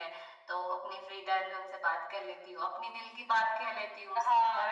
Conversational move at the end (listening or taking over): taking over